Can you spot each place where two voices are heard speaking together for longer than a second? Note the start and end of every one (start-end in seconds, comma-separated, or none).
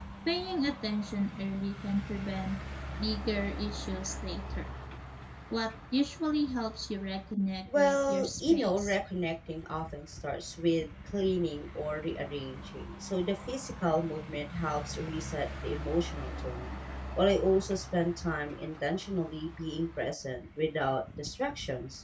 7.8-8.9